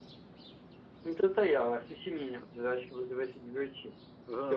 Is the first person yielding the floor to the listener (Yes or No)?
Yes